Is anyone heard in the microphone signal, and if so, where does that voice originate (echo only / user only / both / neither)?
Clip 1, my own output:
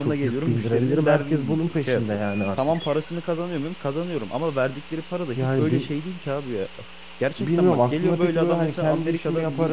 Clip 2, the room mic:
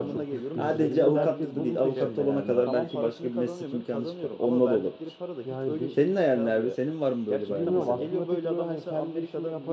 both